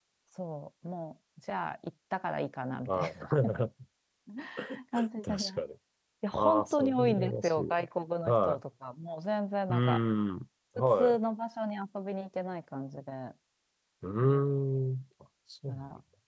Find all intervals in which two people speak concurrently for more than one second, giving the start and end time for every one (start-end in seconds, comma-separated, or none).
6.3-7.6